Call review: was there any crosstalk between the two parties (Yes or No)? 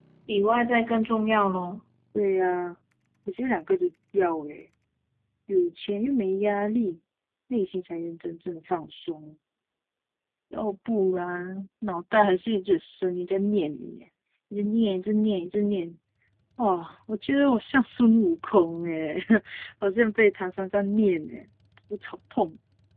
No